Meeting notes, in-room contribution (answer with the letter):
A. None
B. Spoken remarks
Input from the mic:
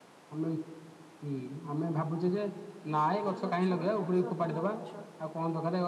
B